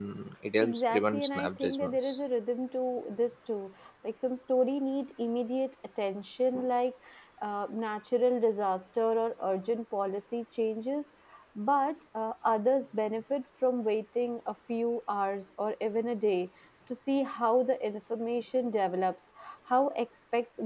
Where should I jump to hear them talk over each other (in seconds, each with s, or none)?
0.6 s